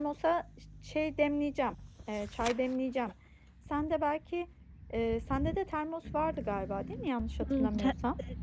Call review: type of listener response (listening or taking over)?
taking over